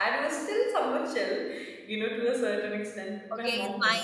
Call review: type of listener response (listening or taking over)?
taking over